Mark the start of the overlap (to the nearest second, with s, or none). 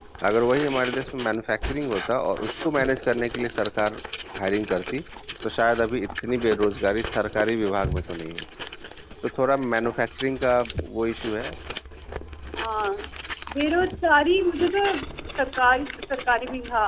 none